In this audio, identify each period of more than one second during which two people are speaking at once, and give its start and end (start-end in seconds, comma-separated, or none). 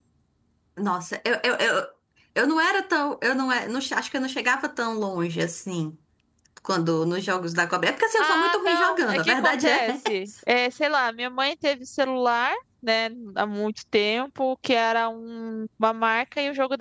8.2-9.8